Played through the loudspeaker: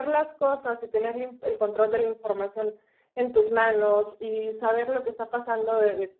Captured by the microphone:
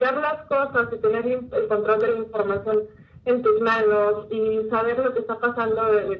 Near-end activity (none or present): none